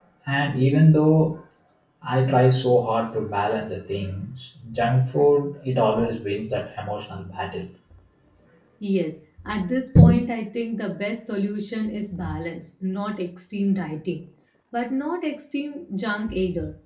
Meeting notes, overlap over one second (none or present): none